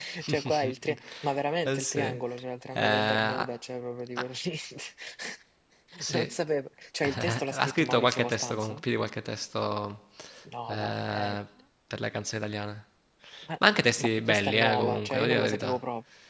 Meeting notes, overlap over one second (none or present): present